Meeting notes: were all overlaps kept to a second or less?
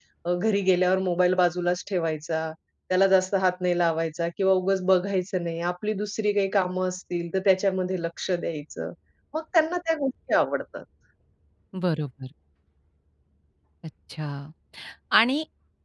Yes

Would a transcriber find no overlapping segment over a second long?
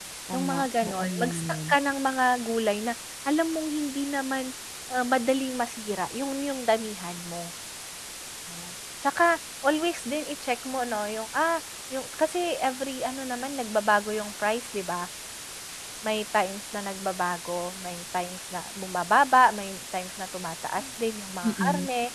No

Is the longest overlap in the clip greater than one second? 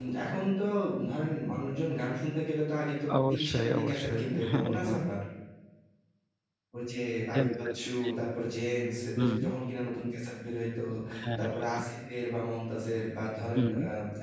Yes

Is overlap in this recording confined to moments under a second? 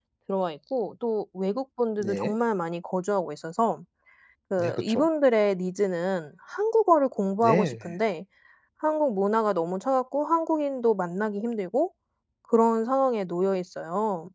Yes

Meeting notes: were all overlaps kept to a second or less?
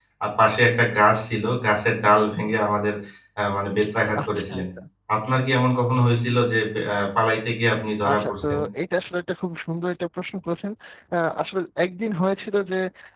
Yes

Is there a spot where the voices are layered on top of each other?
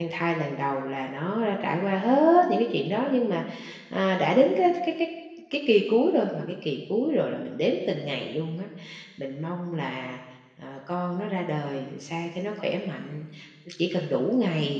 No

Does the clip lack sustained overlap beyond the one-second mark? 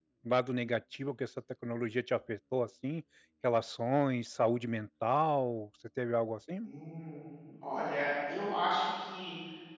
Yes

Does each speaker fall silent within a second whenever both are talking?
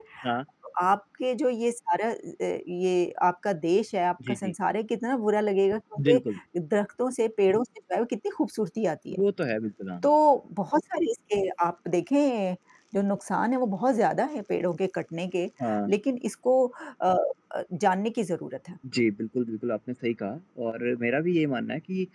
Yes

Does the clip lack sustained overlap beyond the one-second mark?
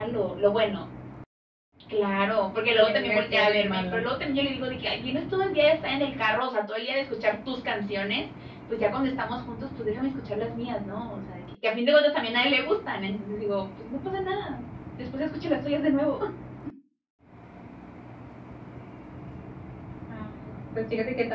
No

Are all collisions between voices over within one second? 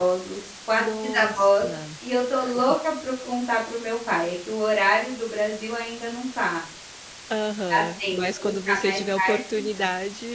No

